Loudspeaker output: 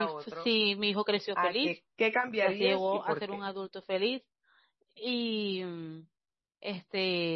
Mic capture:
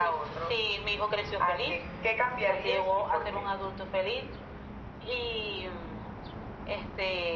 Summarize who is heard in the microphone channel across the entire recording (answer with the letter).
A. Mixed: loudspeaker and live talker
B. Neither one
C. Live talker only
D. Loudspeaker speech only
D